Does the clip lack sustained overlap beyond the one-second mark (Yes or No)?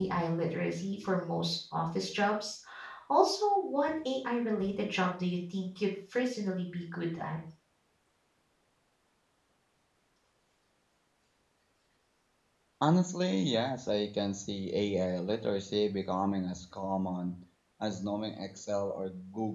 Yes